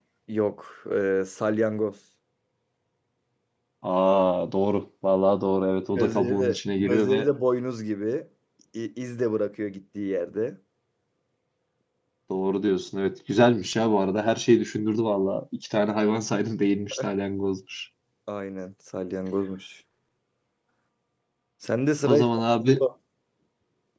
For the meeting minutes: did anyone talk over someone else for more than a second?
Yes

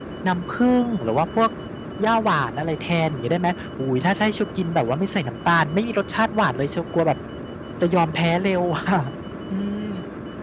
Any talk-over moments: No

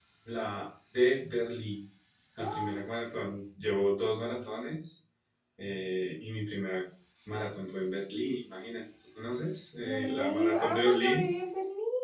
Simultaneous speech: Yes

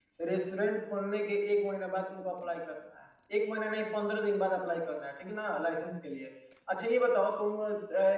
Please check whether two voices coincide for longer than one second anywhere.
No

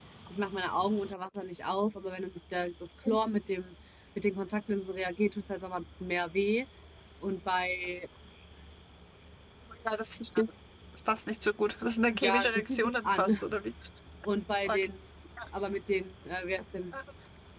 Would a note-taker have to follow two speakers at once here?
Yes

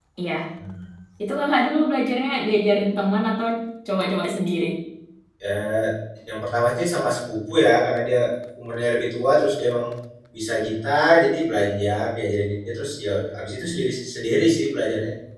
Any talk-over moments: No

